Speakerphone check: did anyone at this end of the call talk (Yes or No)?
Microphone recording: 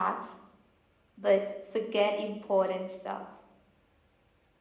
No